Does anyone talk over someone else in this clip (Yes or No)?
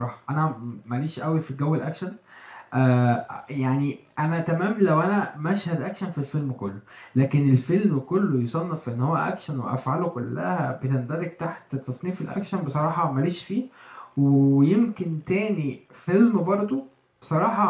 No